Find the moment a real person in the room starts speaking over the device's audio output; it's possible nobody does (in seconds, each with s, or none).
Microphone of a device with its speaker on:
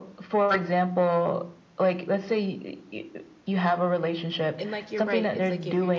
4.6 s